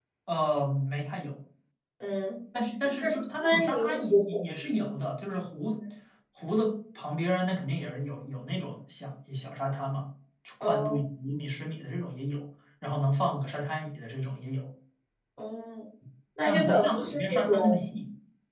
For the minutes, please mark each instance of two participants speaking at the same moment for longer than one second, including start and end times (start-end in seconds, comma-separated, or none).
3.0-4.4, 16.4-17.7